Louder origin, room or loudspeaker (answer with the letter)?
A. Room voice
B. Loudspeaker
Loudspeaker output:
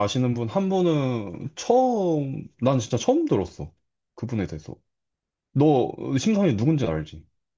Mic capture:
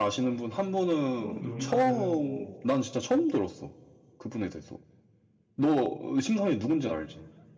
B